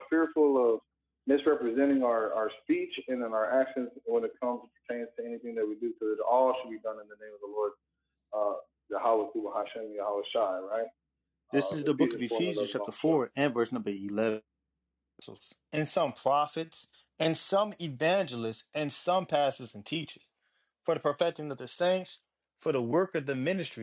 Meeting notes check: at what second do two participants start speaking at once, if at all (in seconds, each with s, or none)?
11.5 s